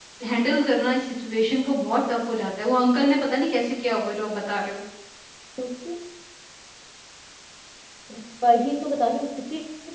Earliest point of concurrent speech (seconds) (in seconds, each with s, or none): none